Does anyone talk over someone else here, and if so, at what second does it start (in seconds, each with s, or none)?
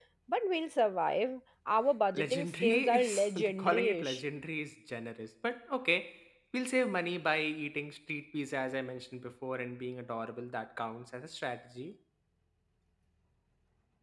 2.1 s